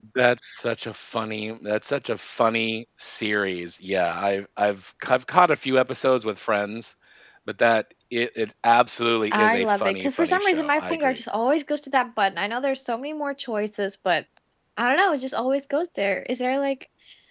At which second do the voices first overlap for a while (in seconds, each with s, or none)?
9.3 s